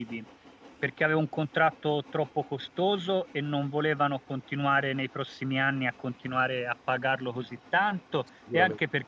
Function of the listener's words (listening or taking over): listening